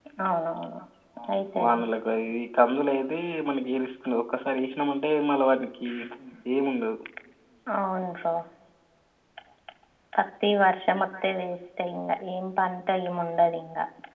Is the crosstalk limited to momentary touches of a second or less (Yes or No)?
Yes